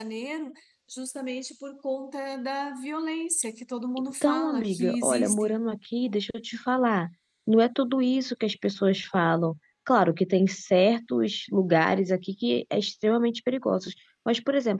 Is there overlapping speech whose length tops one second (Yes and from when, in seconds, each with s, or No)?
Yes, from 4.2 s